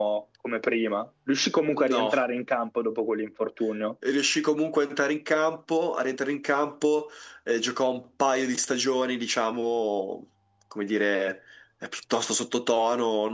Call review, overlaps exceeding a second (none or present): none